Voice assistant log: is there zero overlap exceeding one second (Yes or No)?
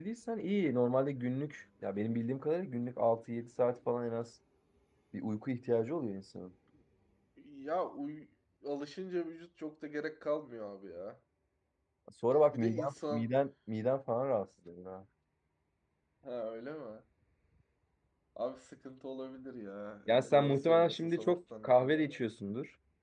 No